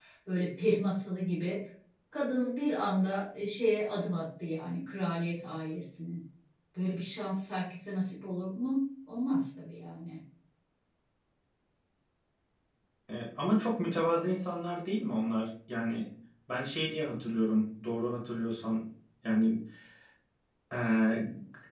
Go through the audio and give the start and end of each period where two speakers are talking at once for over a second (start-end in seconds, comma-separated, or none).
none